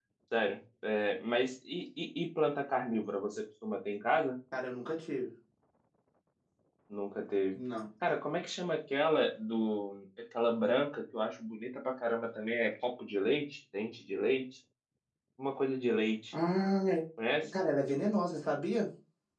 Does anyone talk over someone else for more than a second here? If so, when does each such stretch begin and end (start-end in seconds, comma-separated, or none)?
none